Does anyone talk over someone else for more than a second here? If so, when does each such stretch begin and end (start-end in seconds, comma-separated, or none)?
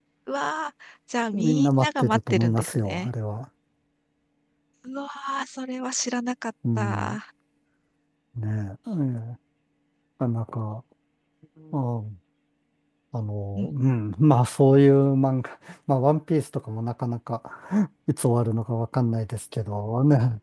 1.3-3.1